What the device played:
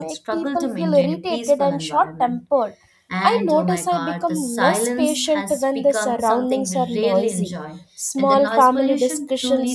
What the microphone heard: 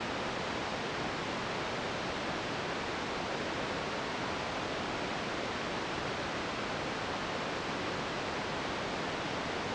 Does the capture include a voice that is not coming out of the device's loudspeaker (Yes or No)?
No